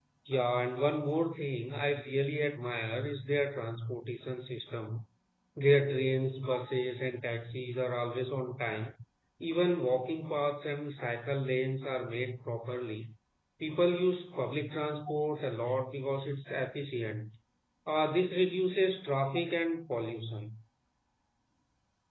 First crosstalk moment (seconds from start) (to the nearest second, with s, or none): none